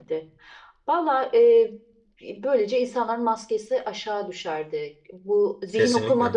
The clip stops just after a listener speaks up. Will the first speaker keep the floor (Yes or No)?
Yes